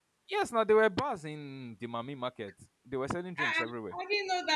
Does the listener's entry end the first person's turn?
Yes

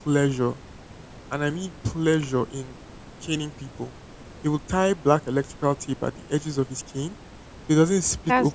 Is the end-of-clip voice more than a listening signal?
No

